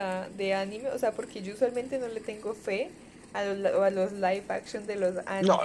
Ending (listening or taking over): taking over